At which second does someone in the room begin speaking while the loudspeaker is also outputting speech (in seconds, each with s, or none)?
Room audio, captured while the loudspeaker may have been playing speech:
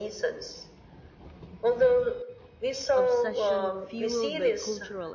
2.9 s